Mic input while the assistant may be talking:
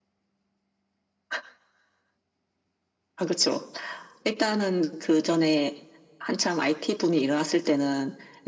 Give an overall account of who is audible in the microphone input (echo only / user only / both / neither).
echo only